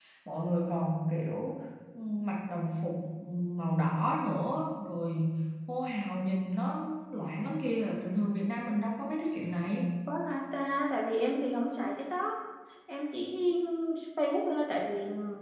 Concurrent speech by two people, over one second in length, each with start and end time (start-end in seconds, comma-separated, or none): none